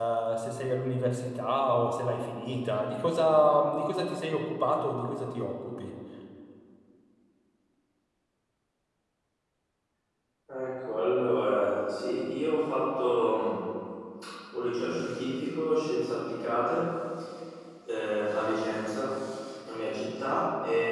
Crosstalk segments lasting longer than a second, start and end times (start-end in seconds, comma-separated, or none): none